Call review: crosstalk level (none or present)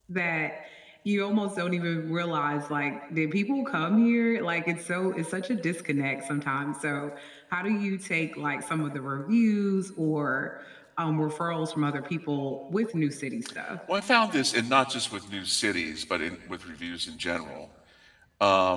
none